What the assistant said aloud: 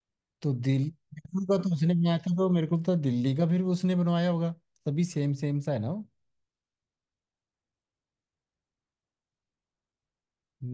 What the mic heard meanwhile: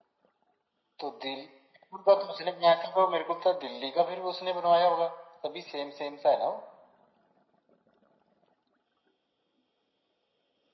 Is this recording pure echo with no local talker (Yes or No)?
Yes